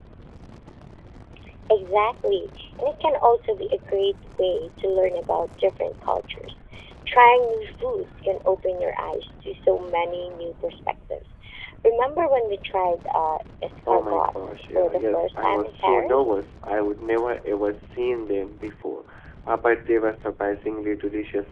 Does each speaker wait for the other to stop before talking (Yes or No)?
No